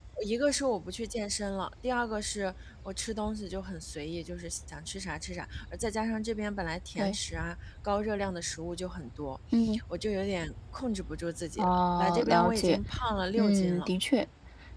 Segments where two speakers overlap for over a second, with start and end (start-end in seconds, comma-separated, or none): 11.6-12.8